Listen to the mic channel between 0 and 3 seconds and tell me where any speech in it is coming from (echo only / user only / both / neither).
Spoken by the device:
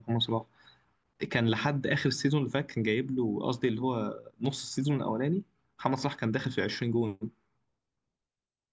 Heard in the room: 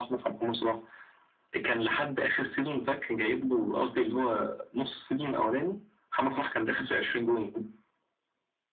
echo only